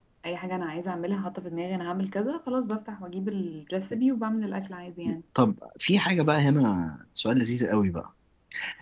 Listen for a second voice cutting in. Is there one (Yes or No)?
No